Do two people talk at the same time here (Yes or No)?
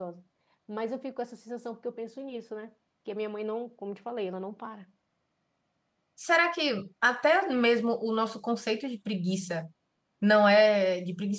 No